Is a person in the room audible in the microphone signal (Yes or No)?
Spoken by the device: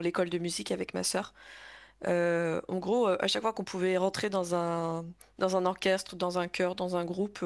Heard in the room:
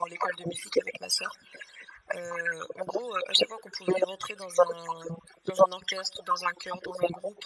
No